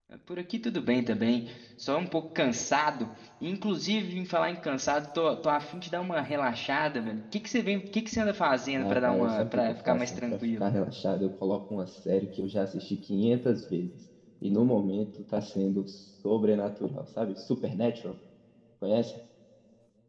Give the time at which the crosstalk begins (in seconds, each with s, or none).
8.8 s